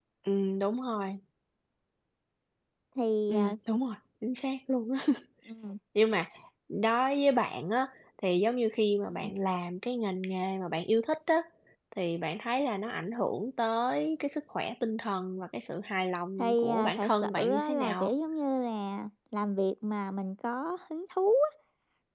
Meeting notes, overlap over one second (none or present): present